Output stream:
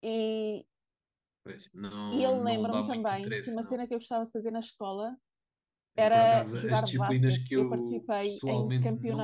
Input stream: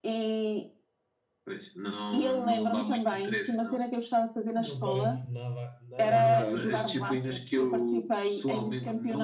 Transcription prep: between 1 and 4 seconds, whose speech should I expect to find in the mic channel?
echo only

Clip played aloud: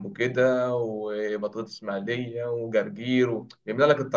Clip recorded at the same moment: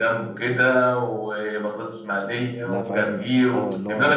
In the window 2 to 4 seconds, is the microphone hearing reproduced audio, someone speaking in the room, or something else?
both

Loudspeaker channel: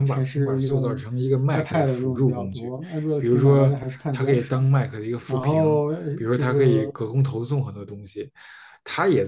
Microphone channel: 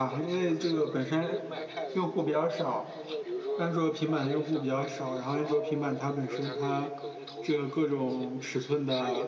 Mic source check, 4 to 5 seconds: both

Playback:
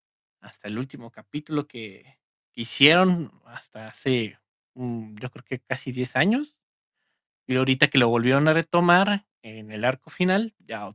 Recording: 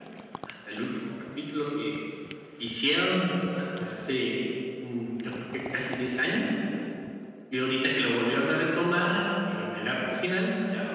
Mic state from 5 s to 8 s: echo only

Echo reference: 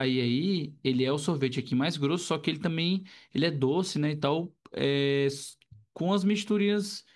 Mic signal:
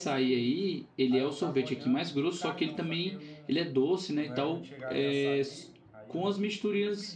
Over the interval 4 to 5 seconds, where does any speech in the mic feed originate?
both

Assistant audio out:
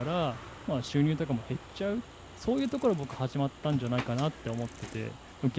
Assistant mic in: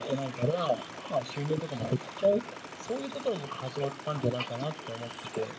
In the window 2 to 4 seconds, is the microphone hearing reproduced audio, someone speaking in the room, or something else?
echo only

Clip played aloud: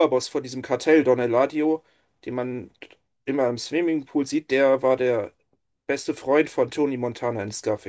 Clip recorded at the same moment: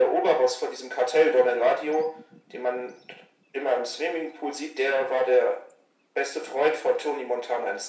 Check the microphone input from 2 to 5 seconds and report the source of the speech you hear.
echo only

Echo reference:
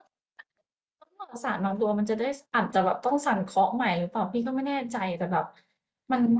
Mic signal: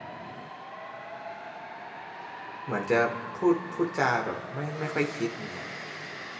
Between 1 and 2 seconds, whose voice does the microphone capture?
neither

